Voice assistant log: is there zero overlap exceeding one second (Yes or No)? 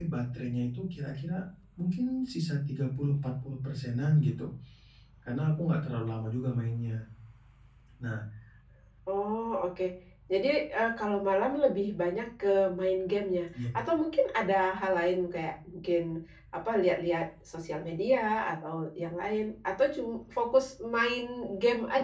Yes